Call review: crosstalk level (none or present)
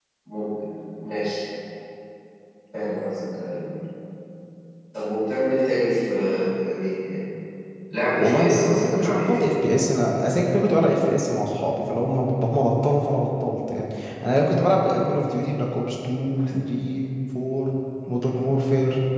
present